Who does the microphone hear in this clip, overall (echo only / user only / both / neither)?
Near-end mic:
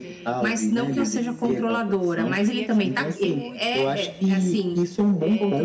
both